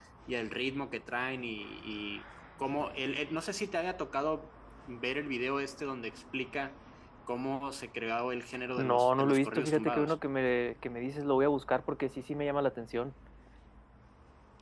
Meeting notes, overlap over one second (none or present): present